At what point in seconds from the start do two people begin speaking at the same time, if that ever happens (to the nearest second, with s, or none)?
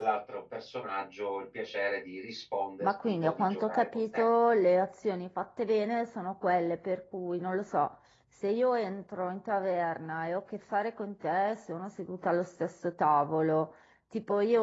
3 s